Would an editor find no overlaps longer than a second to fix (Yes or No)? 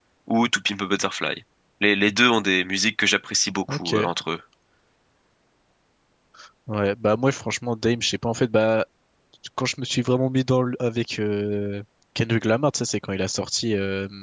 Yes